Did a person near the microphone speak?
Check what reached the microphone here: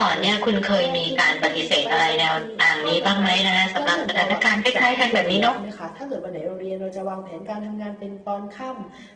Yes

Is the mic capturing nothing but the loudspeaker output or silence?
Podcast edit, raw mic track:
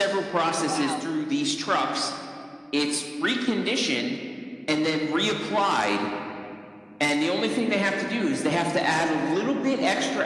No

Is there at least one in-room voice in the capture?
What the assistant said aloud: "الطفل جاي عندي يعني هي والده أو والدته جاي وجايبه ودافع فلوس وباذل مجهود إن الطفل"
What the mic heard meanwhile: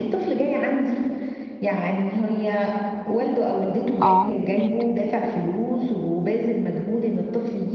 Yes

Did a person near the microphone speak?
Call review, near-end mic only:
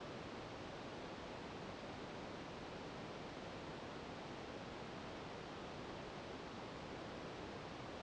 No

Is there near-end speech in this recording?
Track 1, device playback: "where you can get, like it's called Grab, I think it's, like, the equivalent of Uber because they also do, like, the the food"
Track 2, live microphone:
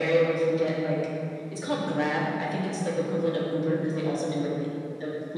No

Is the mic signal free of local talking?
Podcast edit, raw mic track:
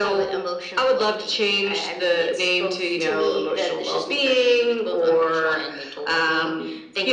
Yes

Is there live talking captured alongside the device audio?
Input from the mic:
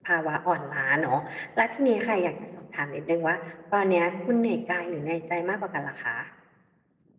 Yes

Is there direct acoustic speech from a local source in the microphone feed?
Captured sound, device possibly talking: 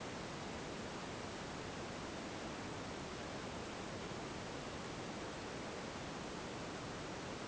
No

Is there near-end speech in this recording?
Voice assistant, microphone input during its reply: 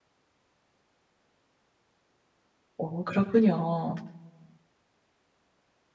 Yes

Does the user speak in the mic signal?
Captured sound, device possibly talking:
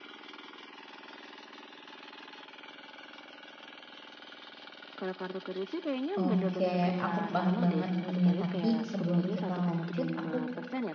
Yes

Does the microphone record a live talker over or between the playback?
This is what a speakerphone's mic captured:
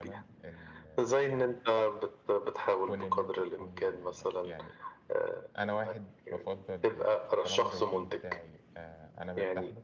Yes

